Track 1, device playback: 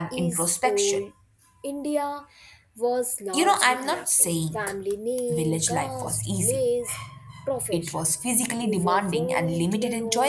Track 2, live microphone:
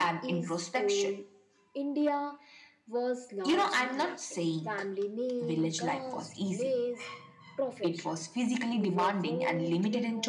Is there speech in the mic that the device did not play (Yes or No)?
No